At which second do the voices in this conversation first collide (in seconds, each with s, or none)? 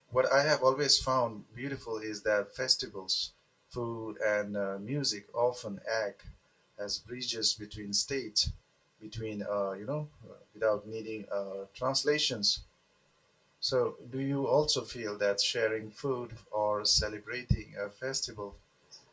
none